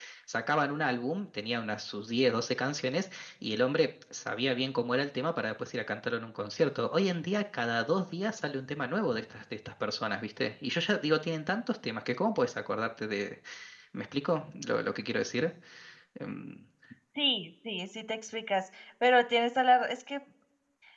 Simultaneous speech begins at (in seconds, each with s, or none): none